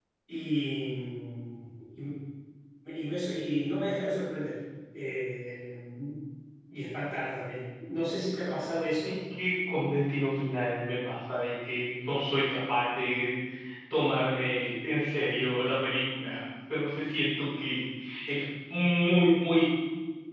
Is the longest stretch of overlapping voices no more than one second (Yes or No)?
Yes